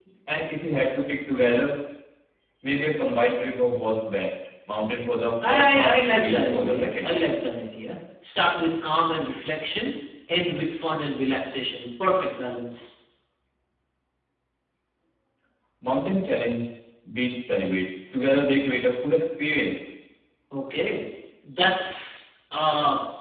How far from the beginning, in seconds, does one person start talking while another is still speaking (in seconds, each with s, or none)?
5.4 s